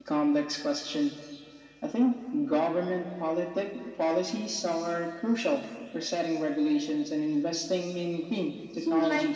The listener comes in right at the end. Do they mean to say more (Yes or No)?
Yes